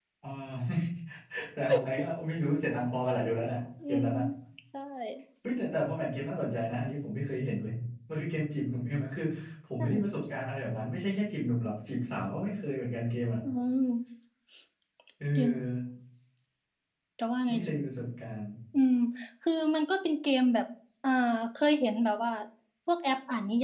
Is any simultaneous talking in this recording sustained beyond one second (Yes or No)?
No